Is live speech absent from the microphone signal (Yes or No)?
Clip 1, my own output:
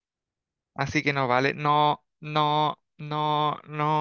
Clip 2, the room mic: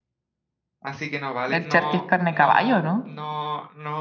No